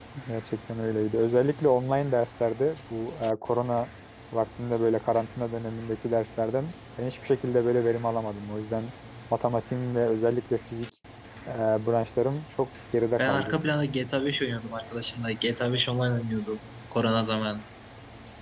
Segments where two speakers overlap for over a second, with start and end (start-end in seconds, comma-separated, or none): none